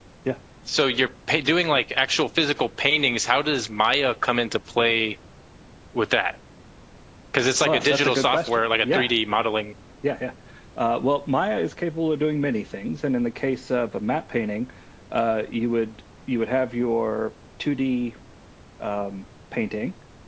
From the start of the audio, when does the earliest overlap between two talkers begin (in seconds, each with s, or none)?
7.6 s